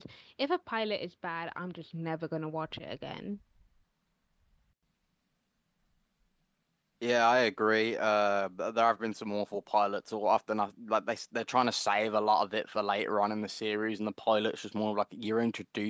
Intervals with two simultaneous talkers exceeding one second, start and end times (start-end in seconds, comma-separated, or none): none